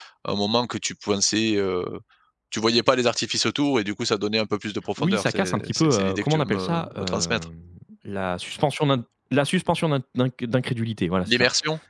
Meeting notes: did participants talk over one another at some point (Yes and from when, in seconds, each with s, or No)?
Yes, from 5.0 s